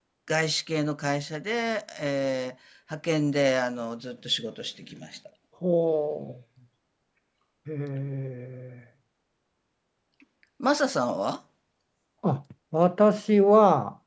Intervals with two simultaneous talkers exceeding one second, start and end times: none

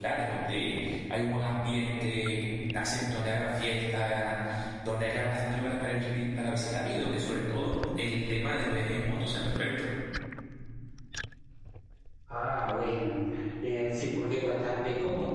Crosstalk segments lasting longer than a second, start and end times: none

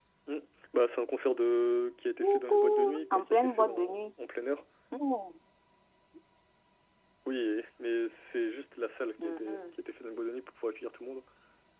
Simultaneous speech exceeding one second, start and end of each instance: 2.2-4.1

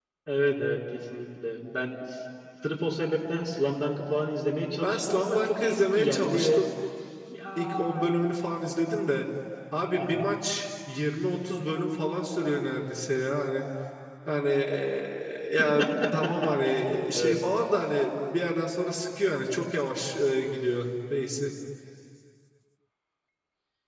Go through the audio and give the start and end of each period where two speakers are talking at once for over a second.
4.8-6.6

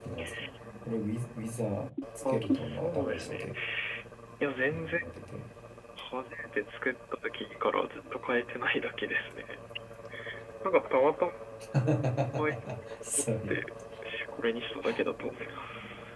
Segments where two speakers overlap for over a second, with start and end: 2.3-3.5

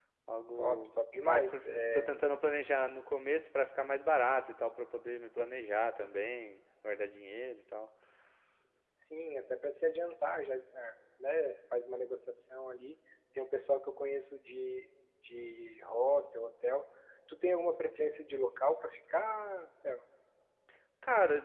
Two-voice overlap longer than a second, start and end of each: 0.6-2.1

